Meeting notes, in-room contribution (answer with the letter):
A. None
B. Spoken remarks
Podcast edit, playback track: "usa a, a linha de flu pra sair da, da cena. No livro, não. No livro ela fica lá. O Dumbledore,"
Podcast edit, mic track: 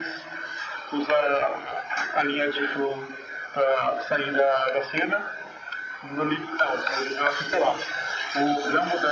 A